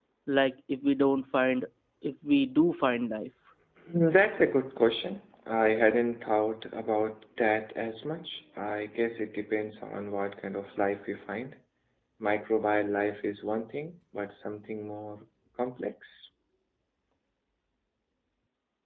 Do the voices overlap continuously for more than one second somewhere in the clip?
No

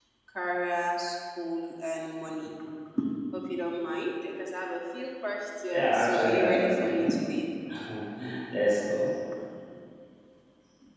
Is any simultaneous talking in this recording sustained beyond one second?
Yes, from 5.7 s

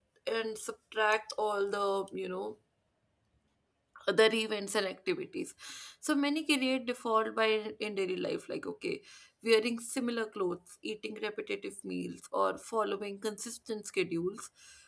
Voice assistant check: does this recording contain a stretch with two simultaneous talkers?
No

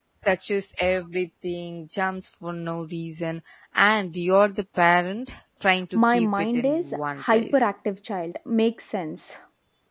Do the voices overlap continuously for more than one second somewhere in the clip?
Yes, from 6.0 s

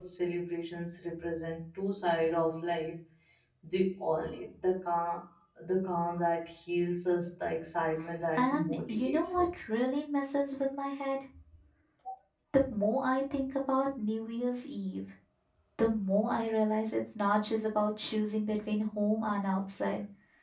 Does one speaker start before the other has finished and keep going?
Yes, from 8.4 s

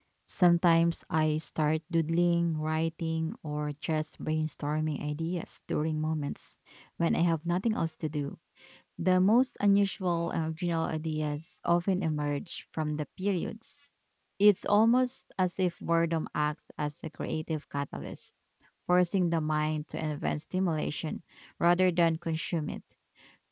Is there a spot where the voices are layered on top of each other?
No

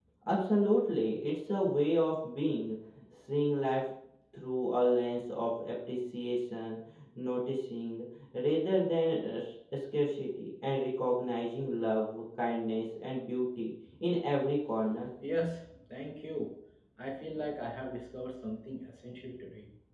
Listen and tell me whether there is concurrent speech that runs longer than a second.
No

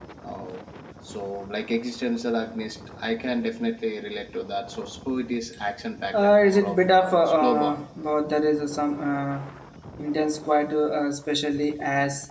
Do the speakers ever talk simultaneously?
Yes, from 6.1 s

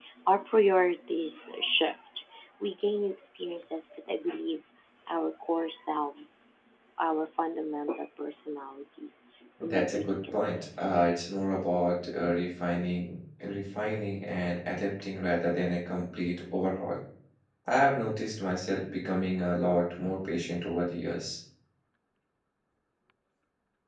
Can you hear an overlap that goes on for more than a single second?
Yes, from 9.6 s

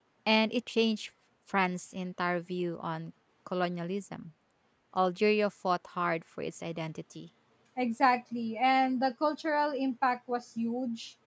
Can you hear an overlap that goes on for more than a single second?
No

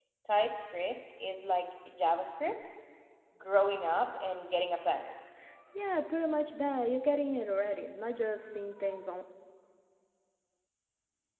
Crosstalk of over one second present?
No

